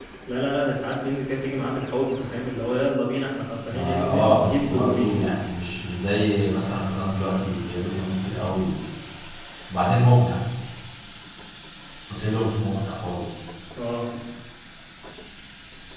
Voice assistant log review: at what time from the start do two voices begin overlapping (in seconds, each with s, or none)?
3.7 s